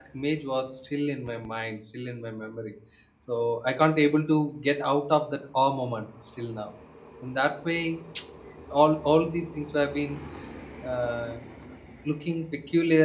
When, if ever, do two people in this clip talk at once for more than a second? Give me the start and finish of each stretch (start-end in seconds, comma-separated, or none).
none